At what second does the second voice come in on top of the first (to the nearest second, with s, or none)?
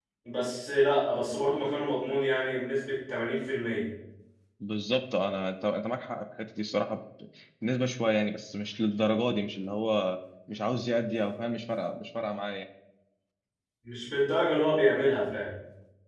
none